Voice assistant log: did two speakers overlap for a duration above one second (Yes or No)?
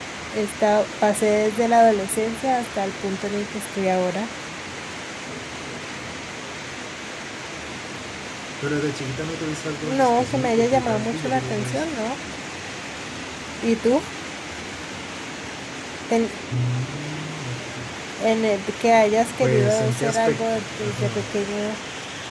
Yes